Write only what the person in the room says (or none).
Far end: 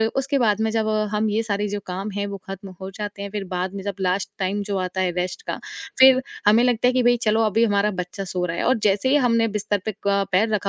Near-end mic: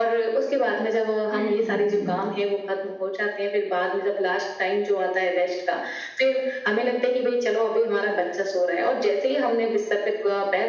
हुँ, हुँ, हुँ।